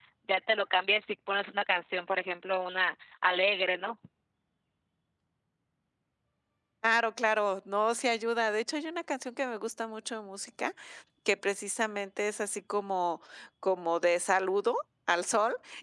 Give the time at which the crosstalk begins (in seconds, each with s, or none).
none